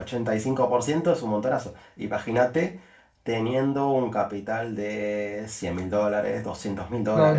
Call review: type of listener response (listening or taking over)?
taking over